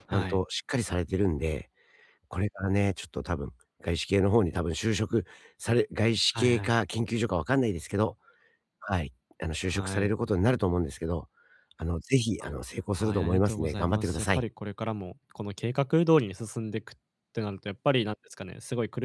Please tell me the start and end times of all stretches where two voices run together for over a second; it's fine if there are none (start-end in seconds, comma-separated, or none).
13.0-14.4